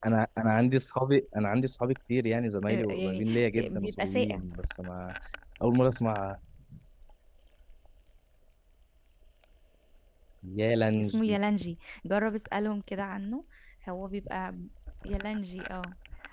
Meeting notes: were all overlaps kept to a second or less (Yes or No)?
No